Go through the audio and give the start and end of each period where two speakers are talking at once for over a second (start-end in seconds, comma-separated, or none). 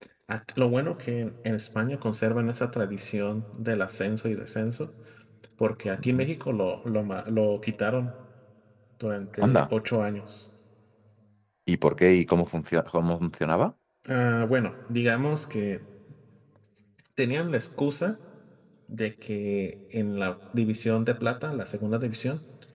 none